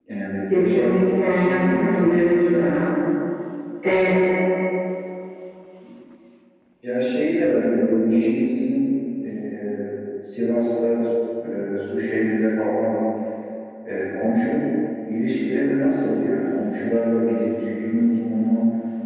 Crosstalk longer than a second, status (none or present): present